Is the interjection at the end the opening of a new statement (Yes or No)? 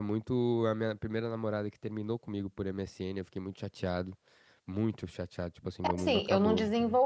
Yes